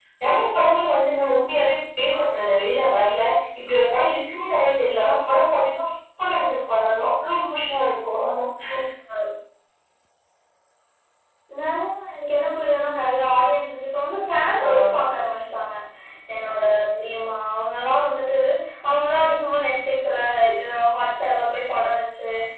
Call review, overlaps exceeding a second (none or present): none